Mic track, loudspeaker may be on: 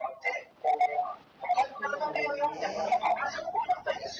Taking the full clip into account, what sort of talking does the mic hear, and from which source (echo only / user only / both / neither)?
both